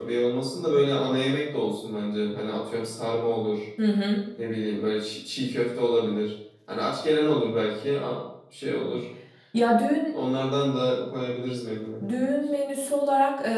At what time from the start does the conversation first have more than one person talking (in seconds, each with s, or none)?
none